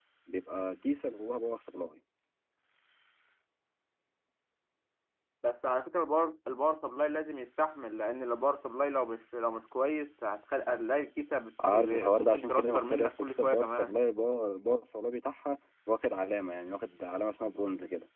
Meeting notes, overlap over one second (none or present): present